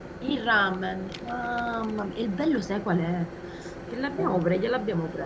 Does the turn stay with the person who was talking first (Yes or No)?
Yes